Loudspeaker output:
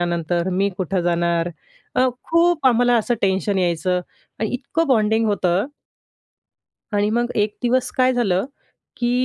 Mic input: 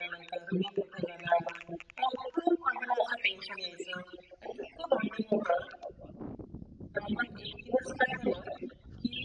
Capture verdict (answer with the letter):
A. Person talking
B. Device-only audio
B